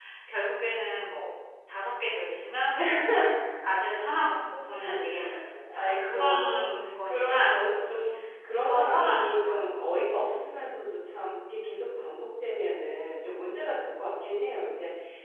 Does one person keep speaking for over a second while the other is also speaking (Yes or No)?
Yes